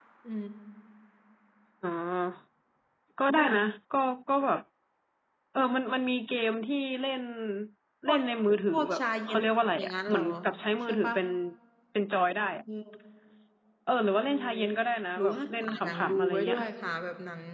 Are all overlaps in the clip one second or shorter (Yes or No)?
No